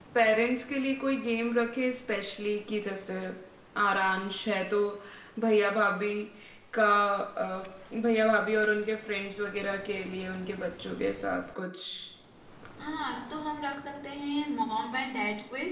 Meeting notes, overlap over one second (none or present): none